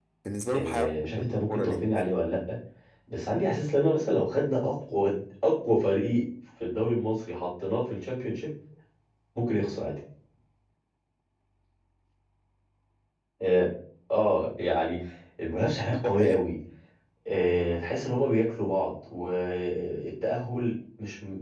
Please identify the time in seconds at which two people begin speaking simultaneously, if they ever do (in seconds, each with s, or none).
0.5 s